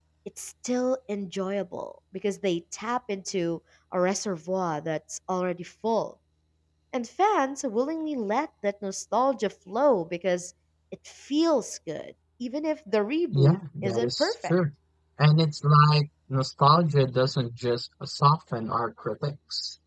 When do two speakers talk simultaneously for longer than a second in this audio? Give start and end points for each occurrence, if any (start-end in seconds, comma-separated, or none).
13.3-14.5